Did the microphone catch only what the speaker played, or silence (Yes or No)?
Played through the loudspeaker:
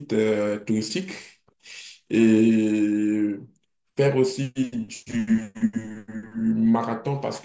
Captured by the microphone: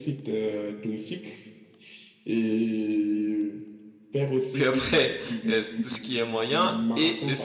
No